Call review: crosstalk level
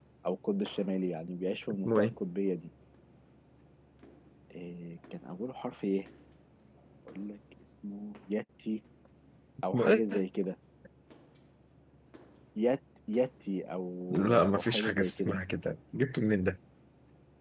present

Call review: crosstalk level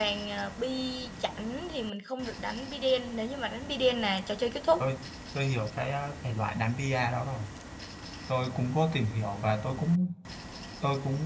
none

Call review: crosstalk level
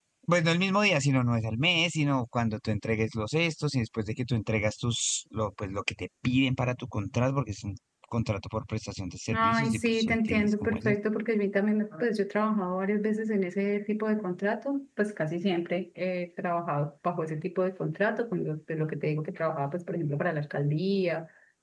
present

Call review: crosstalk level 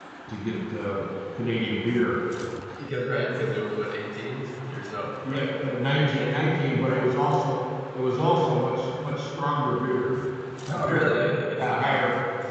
present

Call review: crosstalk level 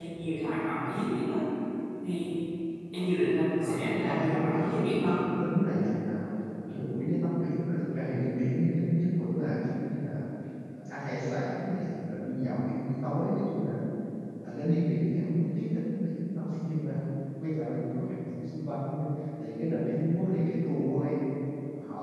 present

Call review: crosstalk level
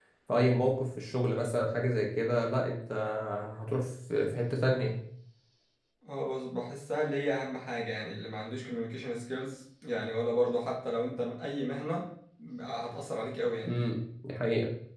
none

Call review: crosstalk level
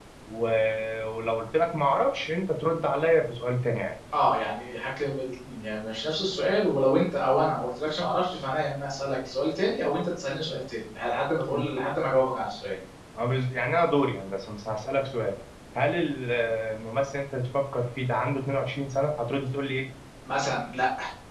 none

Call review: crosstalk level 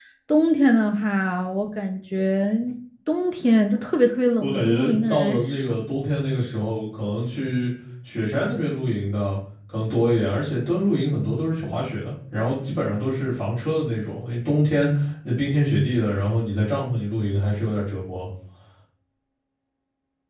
present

